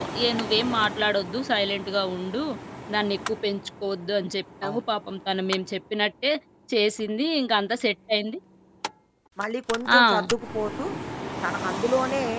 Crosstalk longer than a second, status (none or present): none